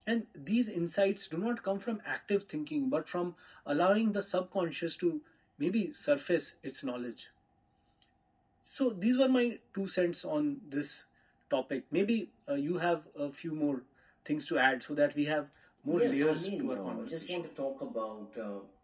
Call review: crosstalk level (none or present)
present